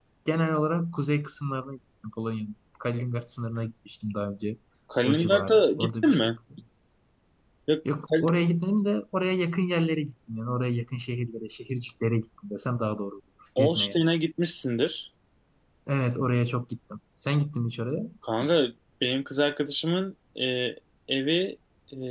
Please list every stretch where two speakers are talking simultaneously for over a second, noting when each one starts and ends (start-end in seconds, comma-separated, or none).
5.0-6.4